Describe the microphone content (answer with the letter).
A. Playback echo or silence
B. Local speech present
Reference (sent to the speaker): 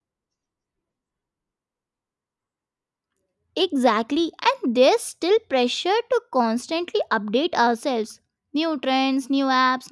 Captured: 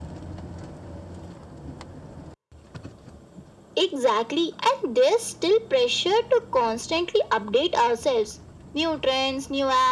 A